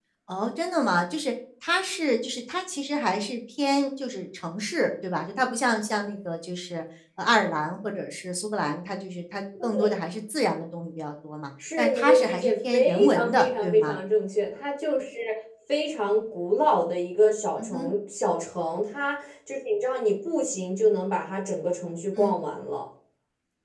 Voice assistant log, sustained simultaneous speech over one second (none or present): present